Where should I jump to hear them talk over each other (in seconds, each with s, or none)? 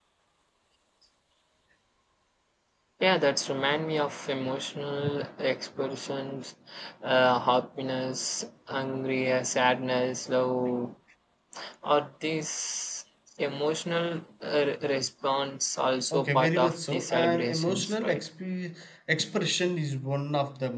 16.1 s